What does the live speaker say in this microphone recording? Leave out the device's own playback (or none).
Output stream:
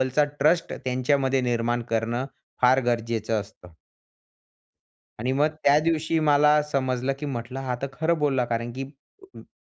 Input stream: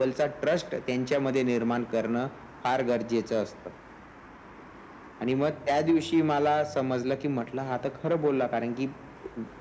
none